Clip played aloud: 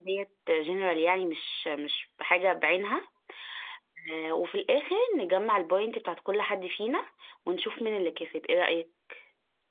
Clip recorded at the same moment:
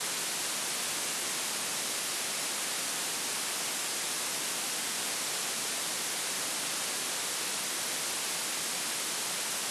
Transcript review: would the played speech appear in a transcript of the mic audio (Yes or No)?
No